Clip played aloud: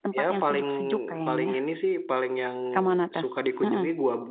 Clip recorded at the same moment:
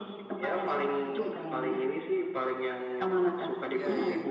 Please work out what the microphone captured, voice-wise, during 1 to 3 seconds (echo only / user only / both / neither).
both